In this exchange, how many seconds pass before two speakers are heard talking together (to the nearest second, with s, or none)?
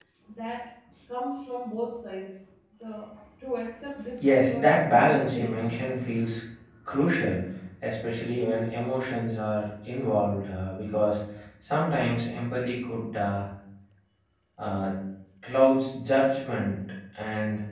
4 s